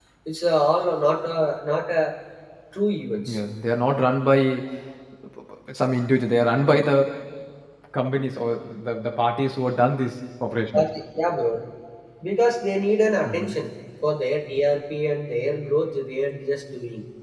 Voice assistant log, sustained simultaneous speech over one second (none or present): none